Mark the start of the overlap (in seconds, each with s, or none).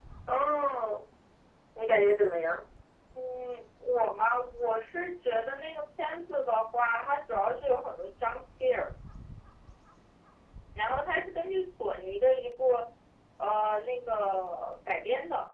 none